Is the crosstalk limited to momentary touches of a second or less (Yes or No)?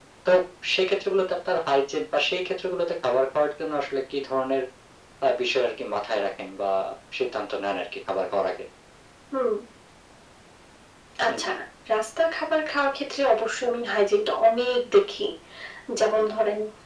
Yes